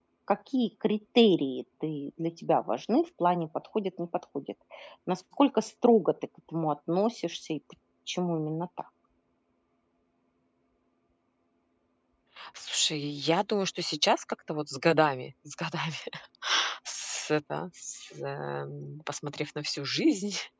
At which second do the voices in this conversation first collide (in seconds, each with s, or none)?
none